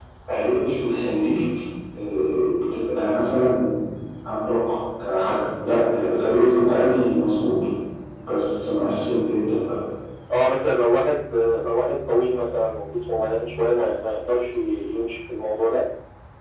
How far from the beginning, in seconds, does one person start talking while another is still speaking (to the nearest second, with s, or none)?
none